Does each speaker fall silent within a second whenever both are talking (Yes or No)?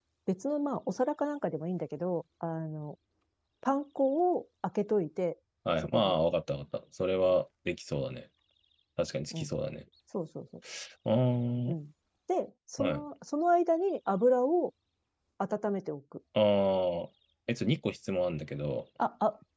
Yes